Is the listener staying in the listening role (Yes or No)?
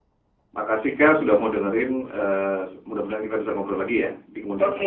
No